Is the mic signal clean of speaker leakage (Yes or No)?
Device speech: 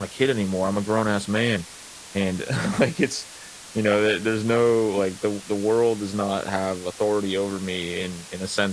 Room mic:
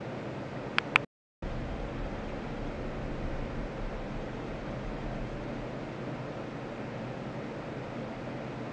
Yes